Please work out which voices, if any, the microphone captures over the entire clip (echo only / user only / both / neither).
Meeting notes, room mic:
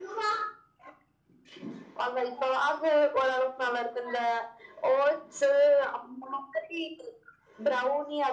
echo only